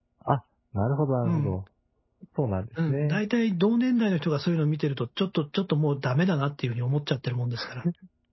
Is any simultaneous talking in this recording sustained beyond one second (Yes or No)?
No